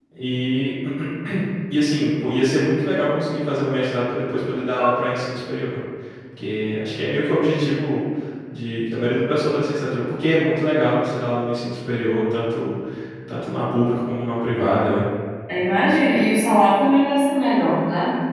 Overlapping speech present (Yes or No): No